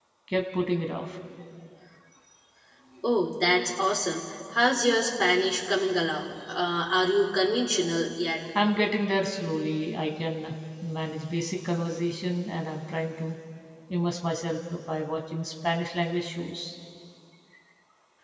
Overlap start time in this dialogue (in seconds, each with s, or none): none